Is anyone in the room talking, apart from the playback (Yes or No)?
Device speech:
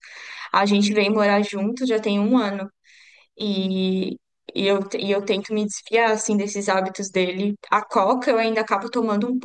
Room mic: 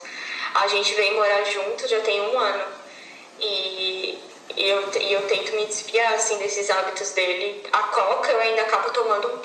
No